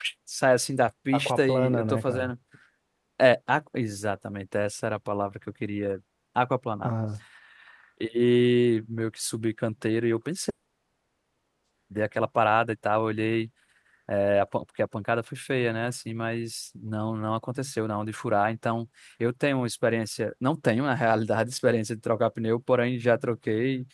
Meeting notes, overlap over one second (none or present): present